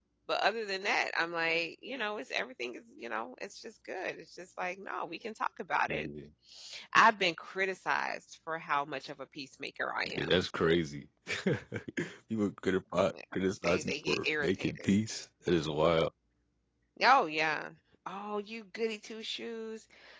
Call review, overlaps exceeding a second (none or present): present